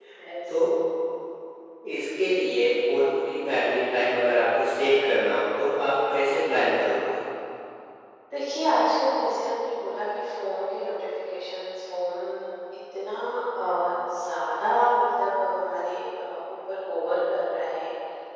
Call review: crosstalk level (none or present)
none